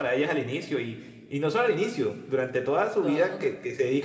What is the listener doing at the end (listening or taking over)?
listening